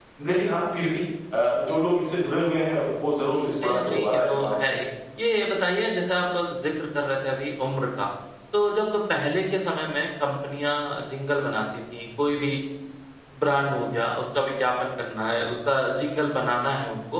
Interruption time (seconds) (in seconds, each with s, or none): 3.2 s